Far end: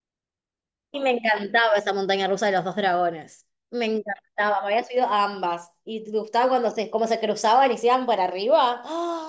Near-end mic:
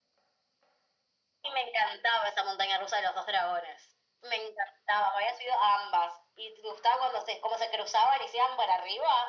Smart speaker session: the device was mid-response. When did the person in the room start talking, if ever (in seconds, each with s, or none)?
none